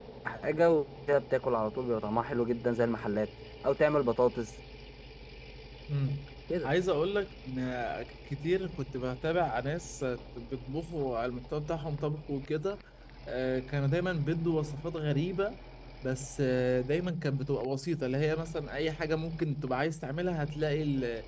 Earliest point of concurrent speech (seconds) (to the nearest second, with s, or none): none